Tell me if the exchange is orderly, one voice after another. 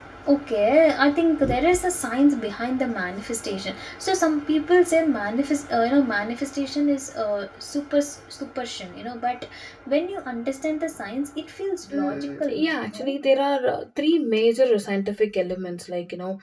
No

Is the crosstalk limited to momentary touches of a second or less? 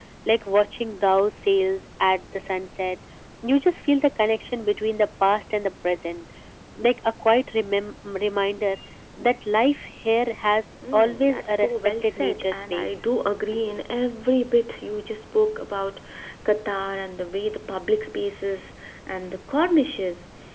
No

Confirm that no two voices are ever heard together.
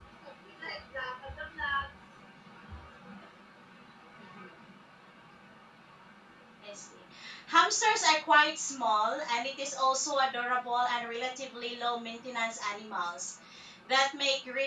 Yes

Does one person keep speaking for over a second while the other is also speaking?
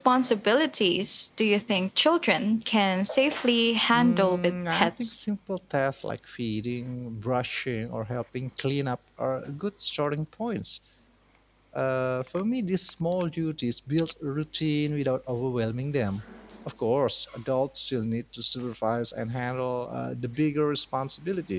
Yes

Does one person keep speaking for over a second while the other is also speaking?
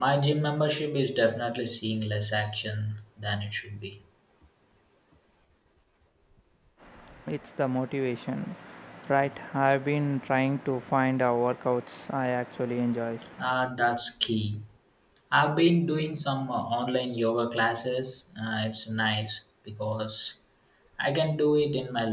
No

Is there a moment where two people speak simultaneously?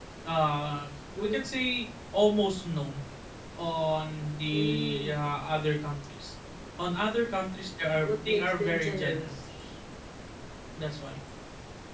Yes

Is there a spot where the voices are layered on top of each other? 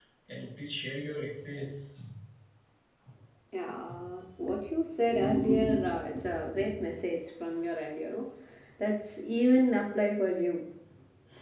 No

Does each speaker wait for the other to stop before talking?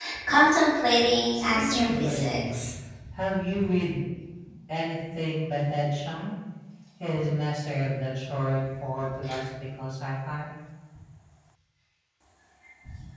No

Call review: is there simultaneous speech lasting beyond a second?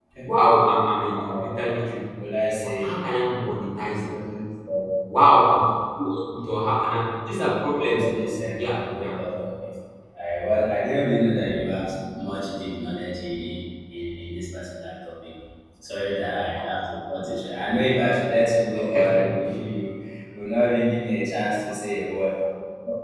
Yes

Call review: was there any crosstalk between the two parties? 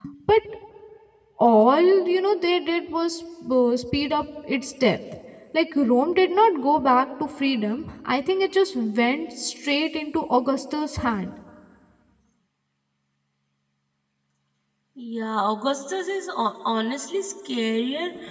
No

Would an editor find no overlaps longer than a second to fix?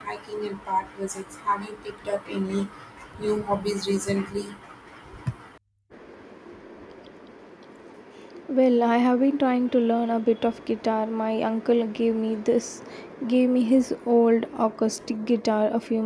Yes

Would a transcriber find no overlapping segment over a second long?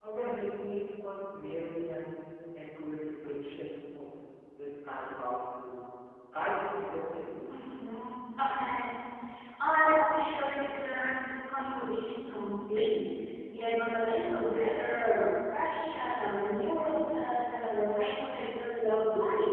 Yes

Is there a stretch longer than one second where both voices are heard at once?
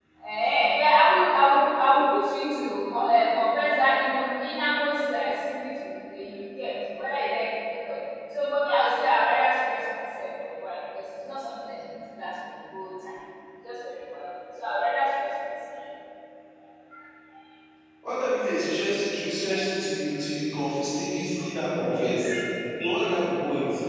No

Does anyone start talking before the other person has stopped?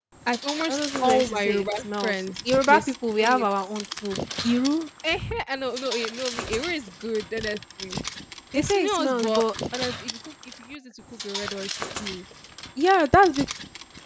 Yes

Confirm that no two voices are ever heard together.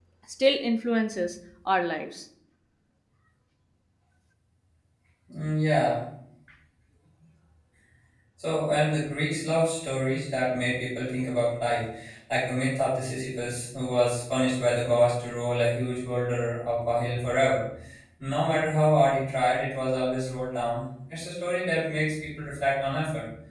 Yes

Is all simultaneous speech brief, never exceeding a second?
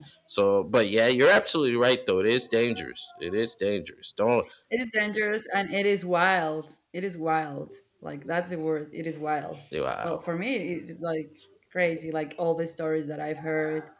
Yes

